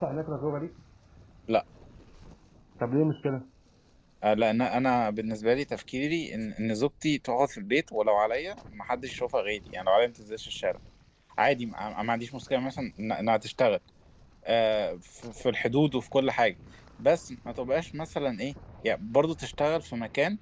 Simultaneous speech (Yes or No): No